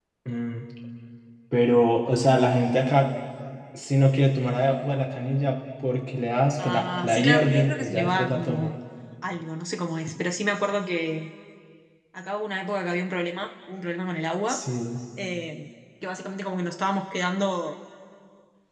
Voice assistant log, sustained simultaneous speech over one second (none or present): present